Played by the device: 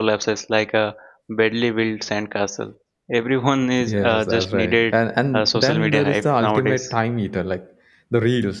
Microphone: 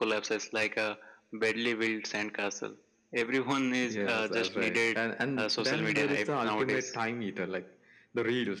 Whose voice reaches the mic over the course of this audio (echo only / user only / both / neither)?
echo only